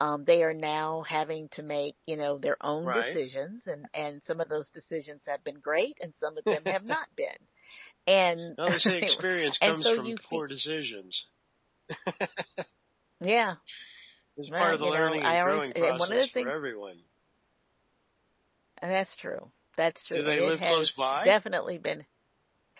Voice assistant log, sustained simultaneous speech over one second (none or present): present